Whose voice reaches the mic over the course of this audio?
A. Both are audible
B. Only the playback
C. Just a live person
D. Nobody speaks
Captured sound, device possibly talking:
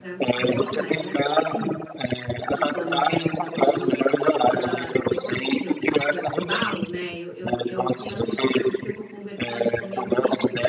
A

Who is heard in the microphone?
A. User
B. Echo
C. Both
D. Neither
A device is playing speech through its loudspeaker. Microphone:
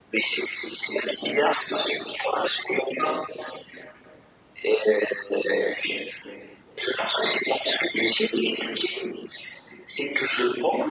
B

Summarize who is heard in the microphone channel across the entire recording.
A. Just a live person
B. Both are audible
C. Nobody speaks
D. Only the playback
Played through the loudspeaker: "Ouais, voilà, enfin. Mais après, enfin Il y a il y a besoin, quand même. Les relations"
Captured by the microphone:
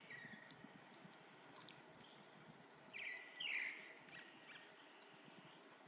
C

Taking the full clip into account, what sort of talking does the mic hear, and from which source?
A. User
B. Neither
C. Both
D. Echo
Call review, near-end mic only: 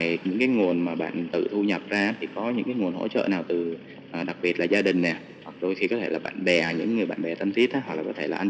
D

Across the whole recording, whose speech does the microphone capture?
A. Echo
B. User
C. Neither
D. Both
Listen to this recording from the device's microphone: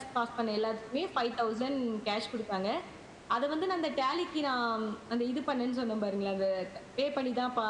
A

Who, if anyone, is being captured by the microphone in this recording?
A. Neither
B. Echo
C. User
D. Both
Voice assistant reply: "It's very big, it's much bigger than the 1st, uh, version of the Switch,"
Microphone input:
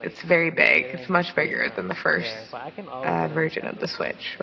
D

